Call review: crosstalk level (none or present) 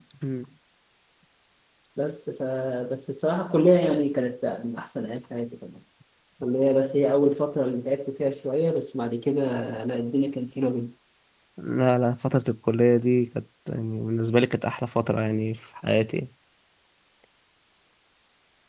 none